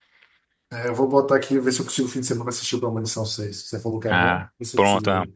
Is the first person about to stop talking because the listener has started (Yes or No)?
Yes